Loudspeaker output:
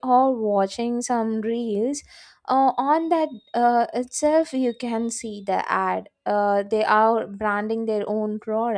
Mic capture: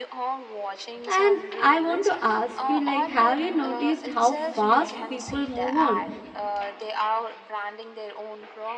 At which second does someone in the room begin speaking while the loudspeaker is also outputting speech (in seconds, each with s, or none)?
1.1 s